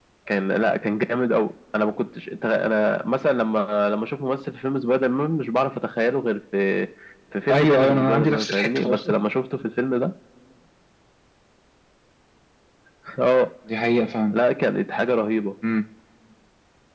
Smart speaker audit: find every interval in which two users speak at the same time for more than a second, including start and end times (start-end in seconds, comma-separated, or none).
7.5-9.2